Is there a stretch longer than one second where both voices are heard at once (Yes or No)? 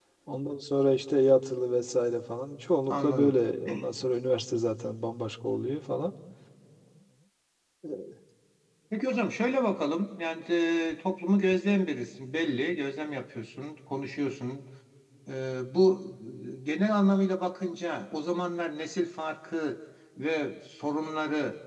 No